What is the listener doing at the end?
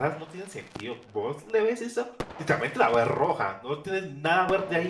taking over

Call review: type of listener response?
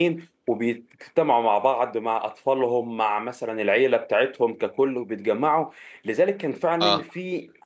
listening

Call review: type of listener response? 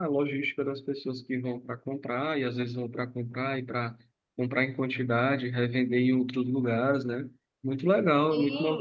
taking over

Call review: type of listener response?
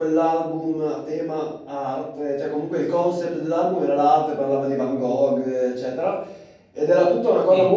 listening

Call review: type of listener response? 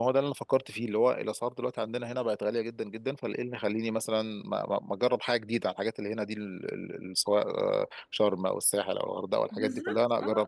taking over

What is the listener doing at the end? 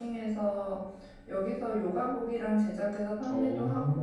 listening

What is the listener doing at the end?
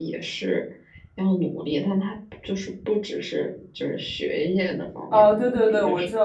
taking over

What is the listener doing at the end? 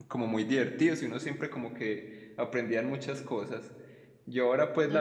listening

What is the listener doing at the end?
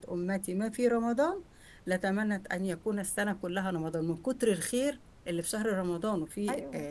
taking over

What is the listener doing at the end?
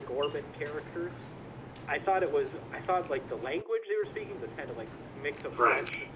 listening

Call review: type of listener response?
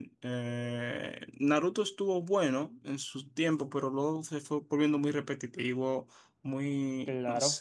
listening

